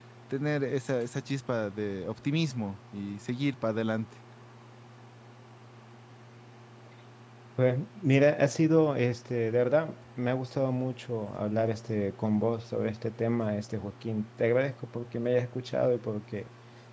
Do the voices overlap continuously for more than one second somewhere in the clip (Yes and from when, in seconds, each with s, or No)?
No